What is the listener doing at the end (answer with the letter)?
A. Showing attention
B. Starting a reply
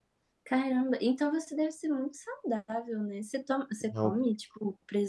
A